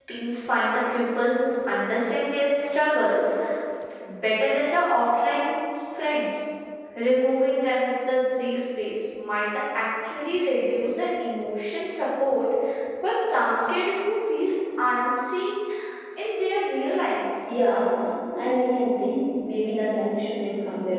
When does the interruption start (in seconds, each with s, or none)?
none